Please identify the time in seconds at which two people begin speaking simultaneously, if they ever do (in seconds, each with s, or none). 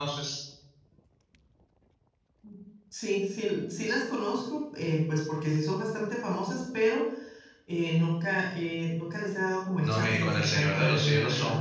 9.8 s